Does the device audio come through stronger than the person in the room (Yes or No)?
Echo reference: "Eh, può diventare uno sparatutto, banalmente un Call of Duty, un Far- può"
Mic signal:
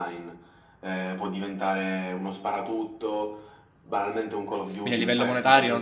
No